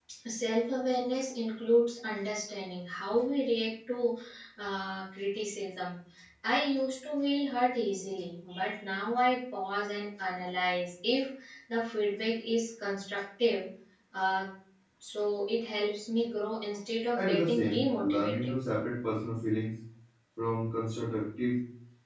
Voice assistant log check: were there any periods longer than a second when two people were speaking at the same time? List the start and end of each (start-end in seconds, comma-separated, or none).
17.1-18.5